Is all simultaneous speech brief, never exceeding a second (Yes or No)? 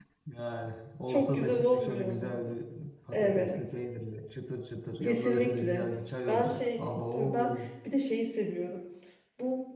No